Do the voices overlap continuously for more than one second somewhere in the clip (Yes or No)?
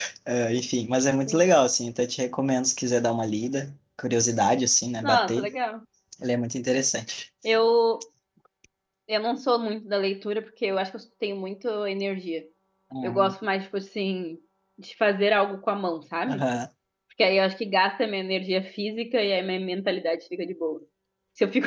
No